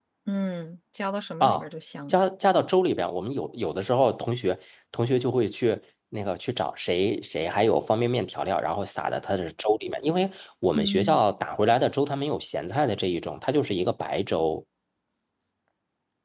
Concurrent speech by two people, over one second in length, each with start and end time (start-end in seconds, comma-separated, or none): none